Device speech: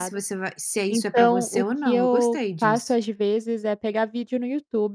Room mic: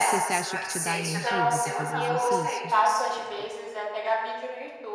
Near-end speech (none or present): present